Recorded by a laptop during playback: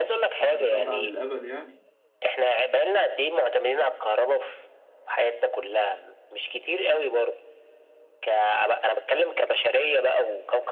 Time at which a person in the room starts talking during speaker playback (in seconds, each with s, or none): 0.4 s